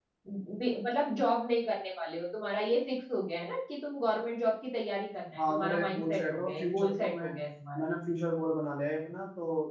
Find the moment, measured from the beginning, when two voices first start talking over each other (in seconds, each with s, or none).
5.4 s